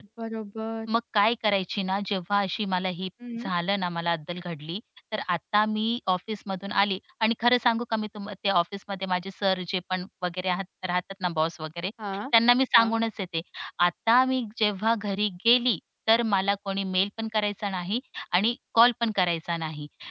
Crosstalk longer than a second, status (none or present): none